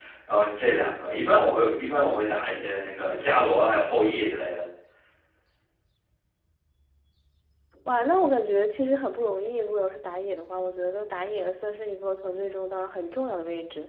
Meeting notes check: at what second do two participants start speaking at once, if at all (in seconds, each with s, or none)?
none